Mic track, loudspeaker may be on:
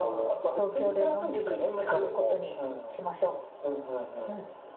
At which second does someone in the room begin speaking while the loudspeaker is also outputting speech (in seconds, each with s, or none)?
1.8 s